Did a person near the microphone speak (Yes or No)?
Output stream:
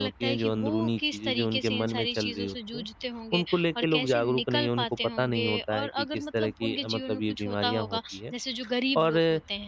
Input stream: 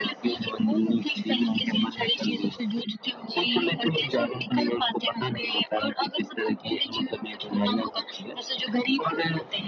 Yes